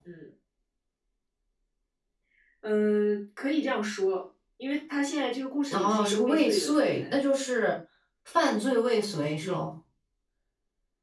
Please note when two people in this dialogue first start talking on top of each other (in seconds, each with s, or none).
5.7 s